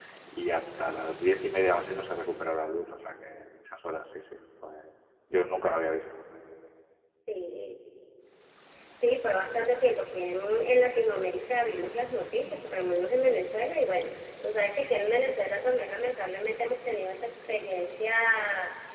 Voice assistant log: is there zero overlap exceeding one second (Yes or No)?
Yes